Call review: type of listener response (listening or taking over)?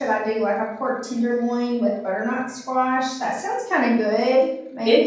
taking over